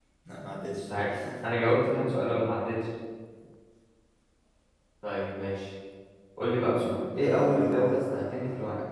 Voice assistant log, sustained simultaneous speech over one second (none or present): present